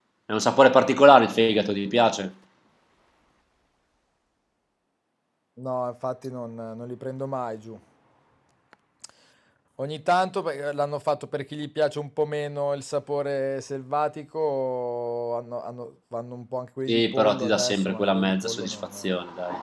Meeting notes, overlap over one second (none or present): present